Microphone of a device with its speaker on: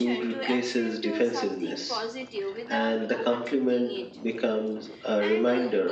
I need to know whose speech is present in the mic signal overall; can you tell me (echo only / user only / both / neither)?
both